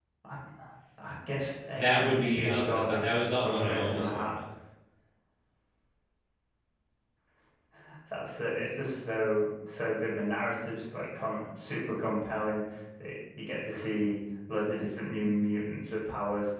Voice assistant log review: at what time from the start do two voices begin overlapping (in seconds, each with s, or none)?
1.8 s